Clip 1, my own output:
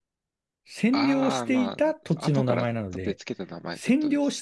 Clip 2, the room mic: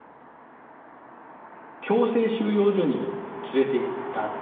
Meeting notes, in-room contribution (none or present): present